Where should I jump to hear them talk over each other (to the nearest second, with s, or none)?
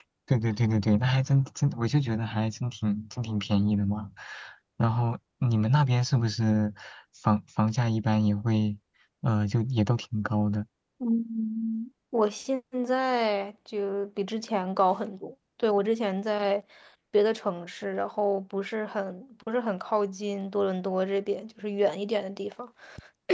none